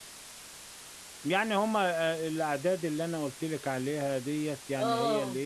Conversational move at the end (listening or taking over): listening